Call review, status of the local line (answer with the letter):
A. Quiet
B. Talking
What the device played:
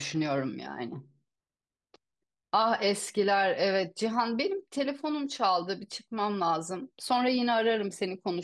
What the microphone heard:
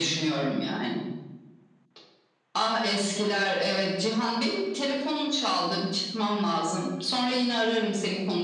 A